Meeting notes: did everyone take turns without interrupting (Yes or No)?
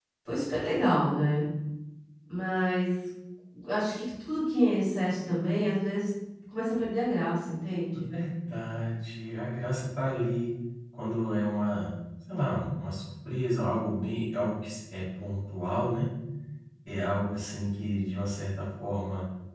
Yes